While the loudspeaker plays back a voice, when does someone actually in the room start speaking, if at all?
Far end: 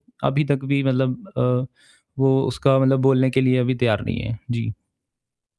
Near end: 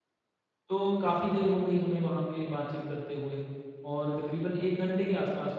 0.7 s

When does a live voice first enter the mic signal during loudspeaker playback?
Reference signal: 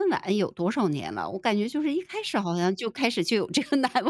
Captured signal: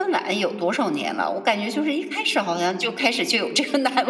none

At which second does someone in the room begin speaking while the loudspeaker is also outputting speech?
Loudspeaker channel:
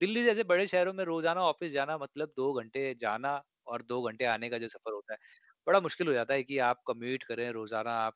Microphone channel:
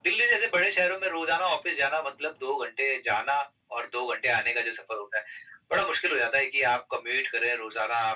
none

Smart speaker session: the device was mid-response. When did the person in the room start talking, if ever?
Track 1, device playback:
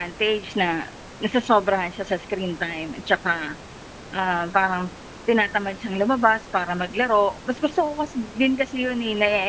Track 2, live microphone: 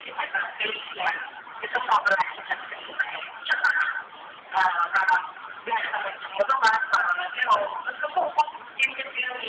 none

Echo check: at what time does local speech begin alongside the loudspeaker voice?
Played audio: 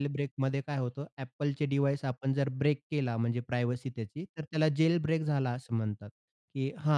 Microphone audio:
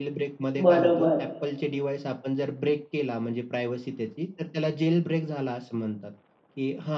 0.6 s

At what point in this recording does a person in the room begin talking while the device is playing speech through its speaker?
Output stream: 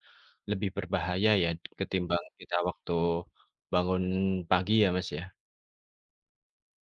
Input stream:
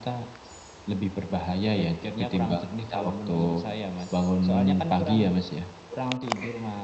1.8 s

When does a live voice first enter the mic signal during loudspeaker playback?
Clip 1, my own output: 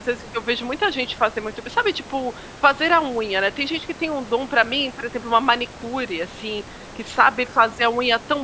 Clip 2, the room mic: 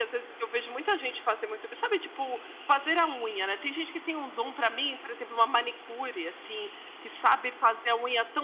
none

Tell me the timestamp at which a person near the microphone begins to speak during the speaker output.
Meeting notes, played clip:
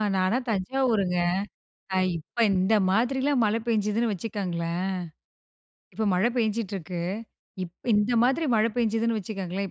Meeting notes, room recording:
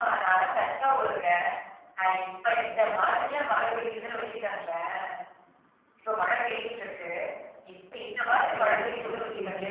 8.3 s

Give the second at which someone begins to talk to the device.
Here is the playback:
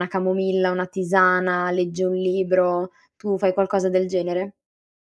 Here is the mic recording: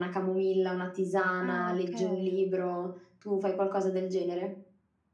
1.4 s

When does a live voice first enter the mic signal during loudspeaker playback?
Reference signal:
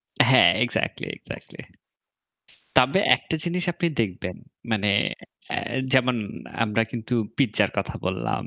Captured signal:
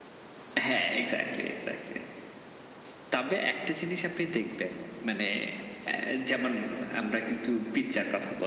none

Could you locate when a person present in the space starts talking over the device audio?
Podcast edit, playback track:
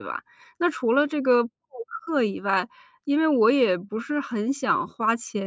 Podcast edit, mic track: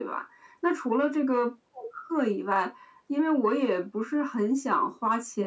none

